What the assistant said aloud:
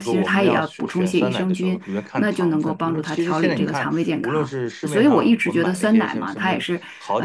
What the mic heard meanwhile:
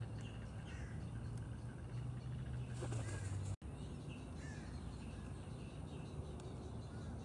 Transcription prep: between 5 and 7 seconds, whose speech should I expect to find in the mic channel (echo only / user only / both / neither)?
neither